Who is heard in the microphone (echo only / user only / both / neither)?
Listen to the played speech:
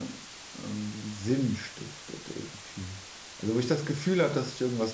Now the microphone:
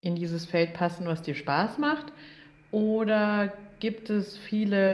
user only